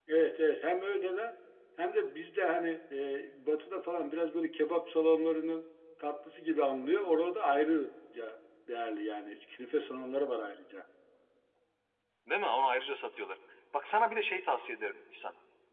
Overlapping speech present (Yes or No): No